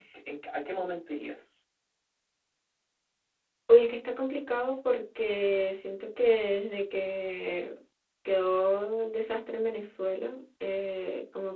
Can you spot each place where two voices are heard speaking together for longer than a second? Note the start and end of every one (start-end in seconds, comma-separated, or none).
none